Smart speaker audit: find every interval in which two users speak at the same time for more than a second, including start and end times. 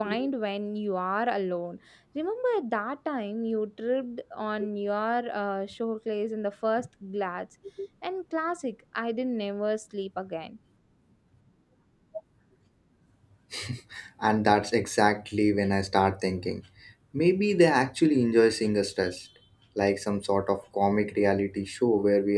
none

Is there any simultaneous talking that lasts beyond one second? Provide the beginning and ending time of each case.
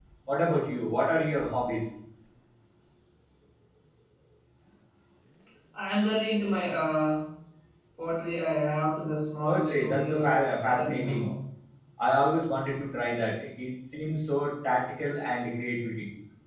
9.4-11.3

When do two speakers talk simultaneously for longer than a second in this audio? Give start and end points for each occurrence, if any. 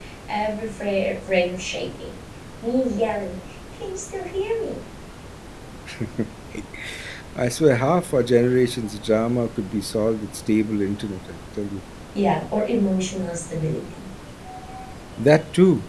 none

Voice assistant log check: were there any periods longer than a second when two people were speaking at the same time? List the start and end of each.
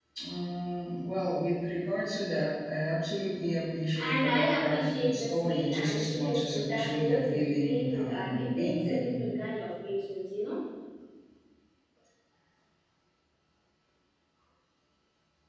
4.0-9.1

